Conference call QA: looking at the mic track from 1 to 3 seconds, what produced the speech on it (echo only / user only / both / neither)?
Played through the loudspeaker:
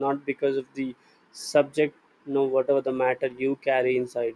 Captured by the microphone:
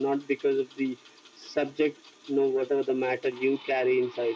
echo only